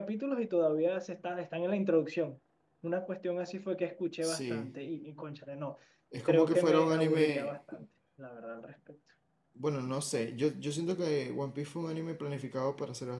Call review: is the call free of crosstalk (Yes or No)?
No